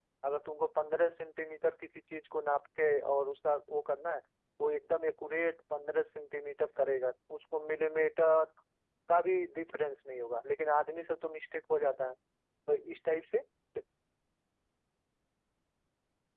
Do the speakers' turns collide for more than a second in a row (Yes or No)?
No